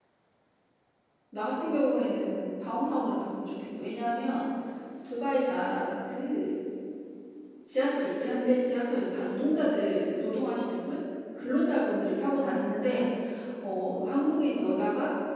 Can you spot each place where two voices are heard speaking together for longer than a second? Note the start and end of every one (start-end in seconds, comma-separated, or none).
none